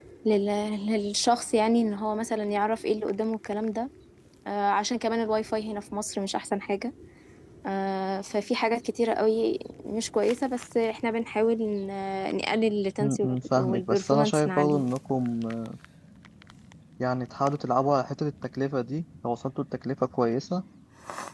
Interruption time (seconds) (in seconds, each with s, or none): 13.0 s